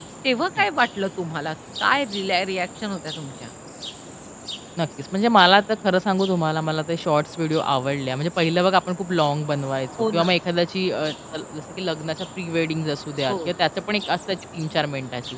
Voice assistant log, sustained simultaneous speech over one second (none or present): none